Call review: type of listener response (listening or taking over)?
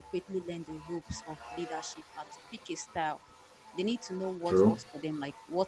listening